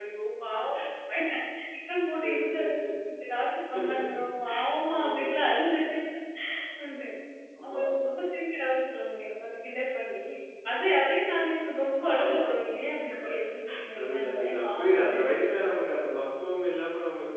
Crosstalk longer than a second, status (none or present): present